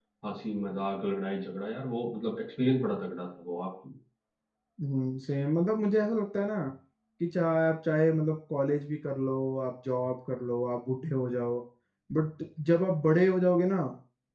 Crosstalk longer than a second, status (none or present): none